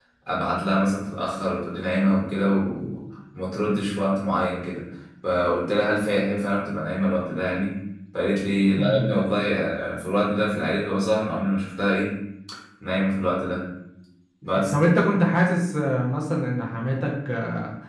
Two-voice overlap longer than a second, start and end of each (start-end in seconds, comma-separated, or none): none